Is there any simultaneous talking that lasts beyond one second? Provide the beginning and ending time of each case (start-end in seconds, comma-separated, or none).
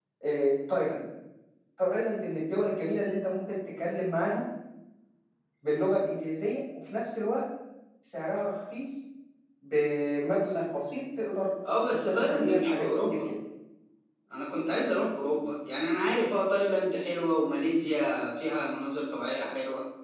11.9-13.2